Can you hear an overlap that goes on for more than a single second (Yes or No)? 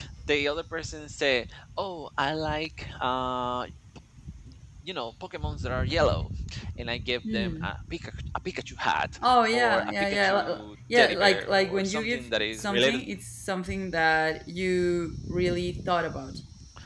Yes